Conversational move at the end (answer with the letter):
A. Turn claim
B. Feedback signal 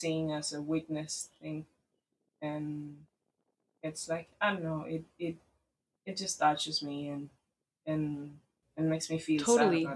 A